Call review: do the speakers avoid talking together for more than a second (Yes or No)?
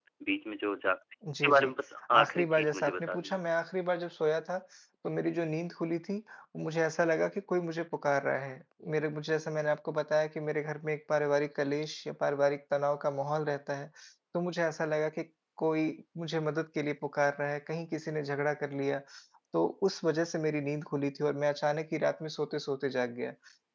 No